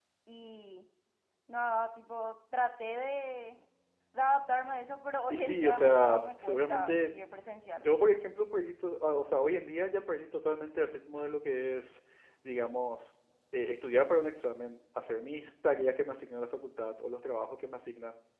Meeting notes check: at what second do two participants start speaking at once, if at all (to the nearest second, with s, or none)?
5 s